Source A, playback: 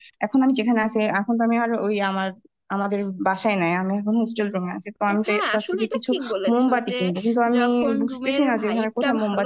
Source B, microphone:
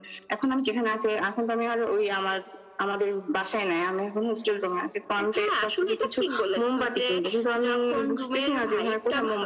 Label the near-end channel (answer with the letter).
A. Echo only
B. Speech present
A